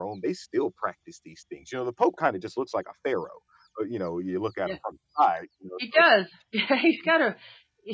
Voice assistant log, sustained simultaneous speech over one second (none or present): none